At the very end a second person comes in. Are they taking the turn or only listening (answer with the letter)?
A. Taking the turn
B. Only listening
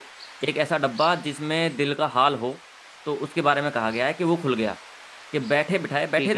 B